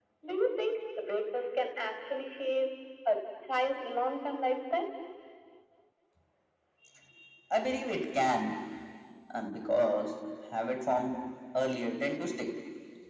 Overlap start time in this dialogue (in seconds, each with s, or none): none